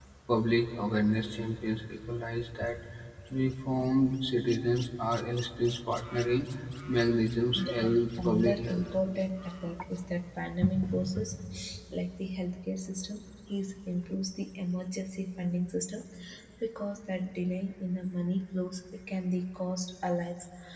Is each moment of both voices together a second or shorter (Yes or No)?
No